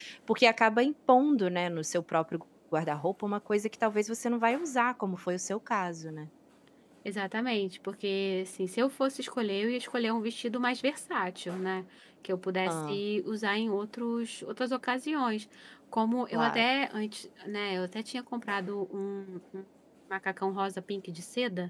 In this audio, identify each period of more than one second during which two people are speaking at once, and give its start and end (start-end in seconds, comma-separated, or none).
none